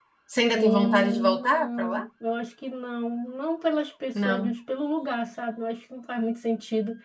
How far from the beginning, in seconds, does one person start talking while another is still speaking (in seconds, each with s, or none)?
0.5 s